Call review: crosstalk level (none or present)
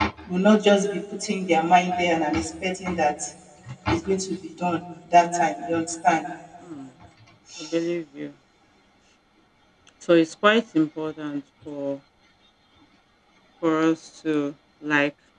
none